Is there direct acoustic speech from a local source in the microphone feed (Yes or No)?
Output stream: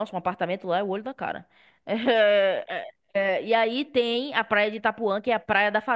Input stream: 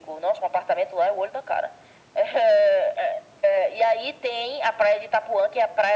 No